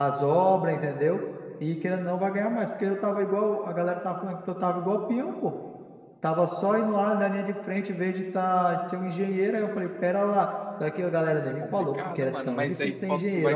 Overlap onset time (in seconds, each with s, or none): 11.6 s